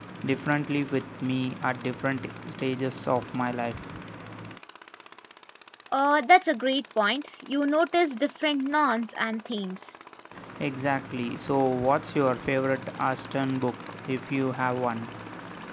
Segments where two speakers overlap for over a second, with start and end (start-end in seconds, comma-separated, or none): none